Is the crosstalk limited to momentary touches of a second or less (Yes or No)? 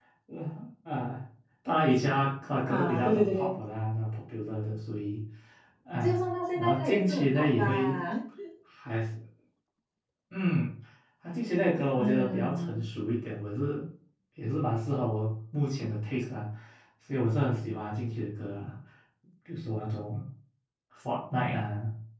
No